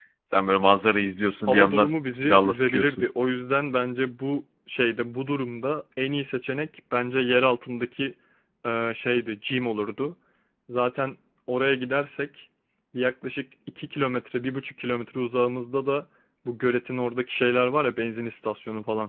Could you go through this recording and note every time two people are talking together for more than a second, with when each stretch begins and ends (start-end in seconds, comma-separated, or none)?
1.5-3.0